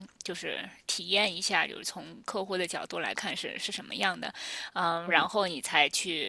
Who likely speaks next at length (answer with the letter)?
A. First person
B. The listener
A